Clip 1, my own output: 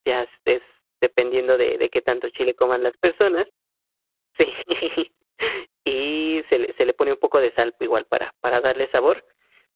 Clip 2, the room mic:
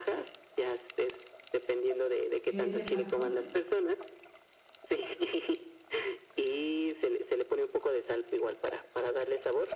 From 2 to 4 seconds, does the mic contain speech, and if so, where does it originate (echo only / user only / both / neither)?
both